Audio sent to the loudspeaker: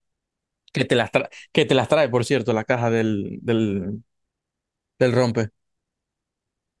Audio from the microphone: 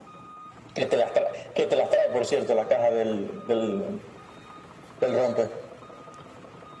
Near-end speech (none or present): none